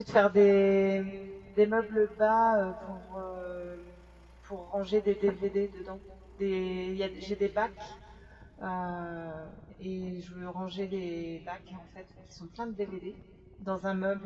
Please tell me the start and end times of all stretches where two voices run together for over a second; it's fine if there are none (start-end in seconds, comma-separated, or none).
none